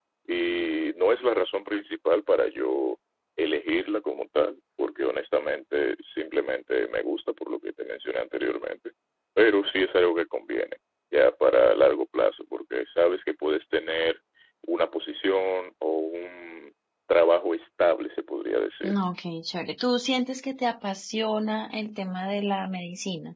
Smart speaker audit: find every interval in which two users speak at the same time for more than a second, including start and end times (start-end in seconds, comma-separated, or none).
none